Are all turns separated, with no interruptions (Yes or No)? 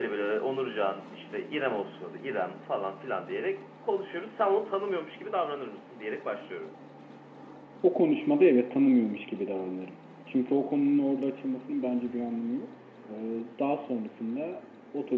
Yes